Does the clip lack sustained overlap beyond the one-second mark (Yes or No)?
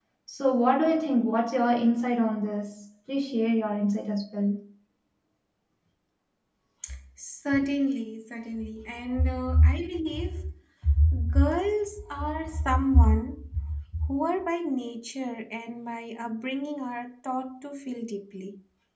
Yes